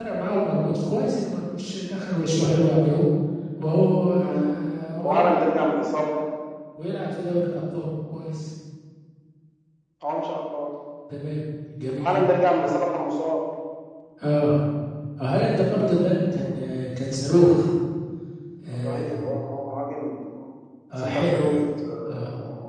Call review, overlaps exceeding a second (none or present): none